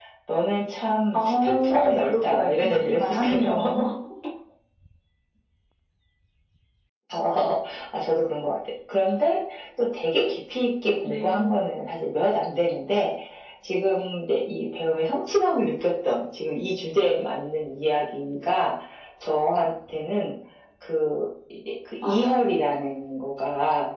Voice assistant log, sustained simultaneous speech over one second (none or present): present